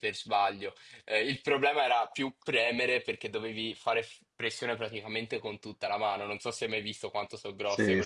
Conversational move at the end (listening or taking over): taking over